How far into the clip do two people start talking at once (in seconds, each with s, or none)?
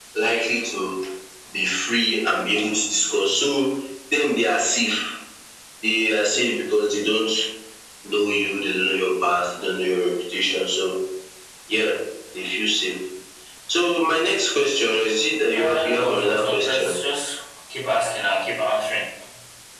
15.5 s